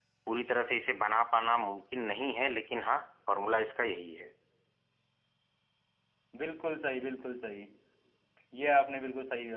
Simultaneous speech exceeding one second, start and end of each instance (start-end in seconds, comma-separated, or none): none